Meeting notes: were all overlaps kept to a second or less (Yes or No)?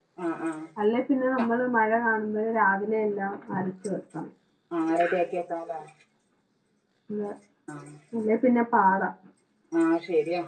Yes